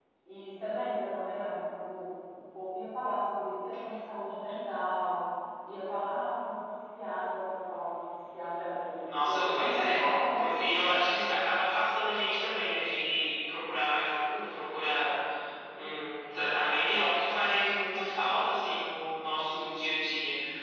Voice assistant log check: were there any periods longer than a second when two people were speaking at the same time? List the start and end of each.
9.1-10.5

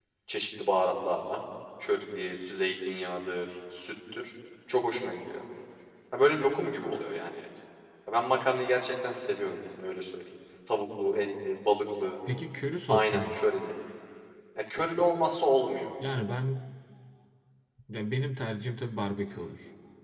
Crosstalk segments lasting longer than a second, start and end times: none

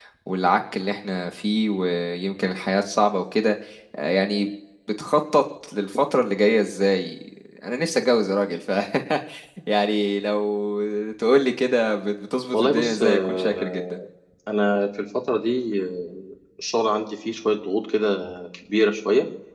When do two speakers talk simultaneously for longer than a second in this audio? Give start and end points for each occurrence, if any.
12.5-14.0

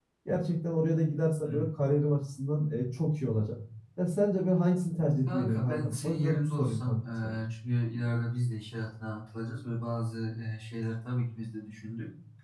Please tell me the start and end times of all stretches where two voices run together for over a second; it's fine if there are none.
5.3-7.3

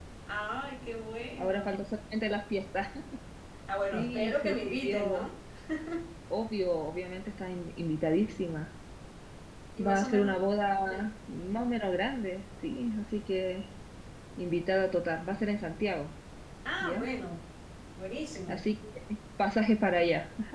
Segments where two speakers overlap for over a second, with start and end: 3.9-5.3

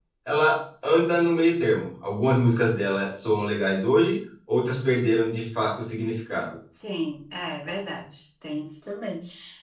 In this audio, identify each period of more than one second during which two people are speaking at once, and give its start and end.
none

